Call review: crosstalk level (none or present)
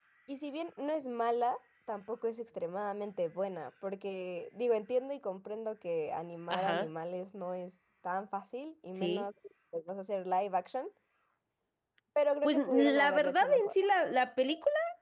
present